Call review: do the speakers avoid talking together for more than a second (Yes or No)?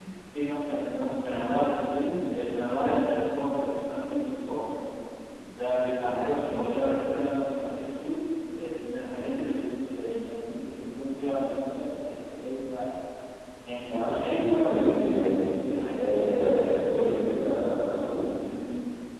No